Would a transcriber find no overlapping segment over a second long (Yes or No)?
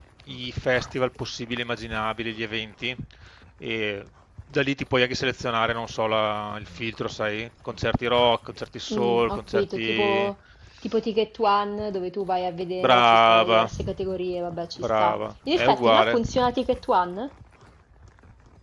No